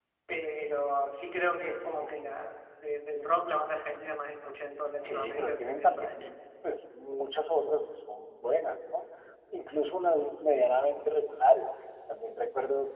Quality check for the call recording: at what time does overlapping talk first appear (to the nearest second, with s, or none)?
5 s